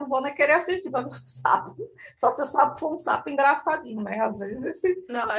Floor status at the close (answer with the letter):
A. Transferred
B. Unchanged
A